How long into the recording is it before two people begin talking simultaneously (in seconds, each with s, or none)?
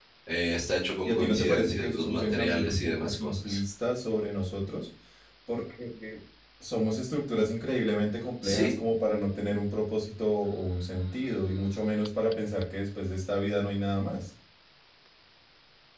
1.1 s